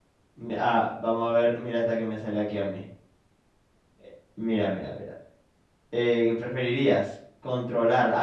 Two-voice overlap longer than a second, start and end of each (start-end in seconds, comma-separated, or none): none